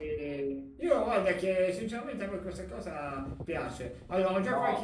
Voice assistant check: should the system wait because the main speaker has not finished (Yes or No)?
No